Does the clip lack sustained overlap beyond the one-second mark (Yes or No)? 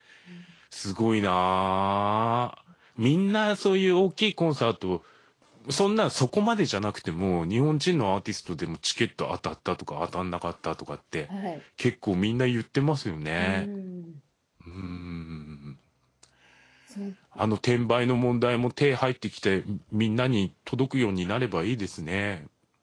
Yes